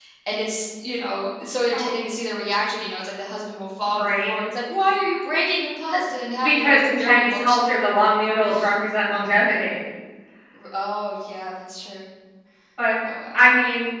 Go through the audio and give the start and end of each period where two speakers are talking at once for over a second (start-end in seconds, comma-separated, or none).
6.4-7.8